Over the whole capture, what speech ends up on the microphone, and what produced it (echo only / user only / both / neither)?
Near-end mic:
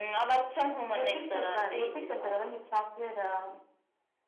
echo only